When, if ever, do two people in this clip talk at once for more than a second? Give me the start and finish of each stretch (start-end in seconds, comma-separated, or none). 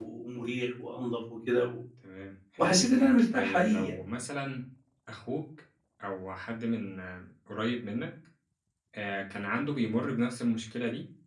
2.6-3.9